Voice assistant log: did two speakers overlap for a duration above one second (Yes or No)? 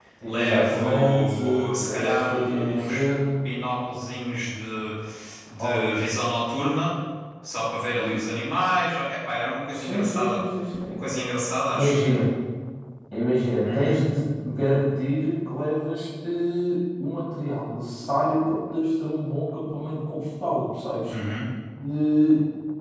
Yes